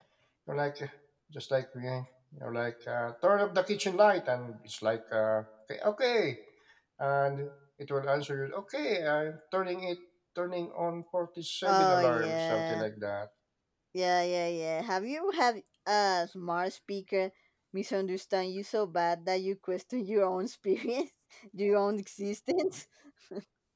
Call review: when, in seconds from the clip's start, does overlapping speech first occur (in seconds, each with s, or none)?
11.6 s